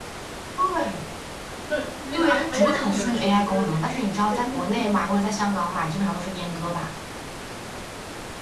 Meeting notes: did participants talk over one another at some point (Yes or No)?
Yes